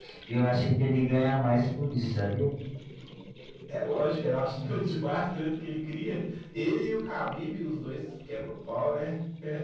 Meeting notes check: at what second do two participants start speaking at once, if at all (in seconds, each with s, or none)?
none